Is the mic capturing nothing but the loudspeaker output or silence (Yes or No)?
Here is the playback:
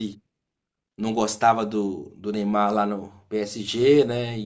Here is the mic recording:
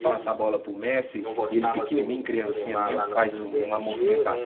No